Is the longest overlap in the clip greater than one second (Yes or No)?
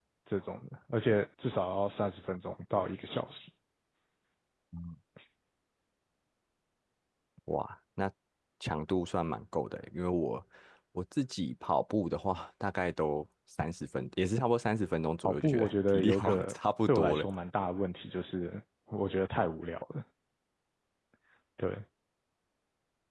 Yes